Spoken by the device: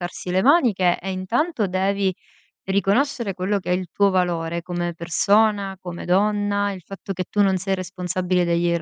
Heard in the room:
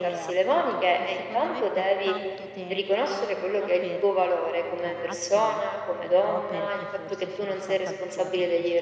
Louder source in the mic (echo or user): echo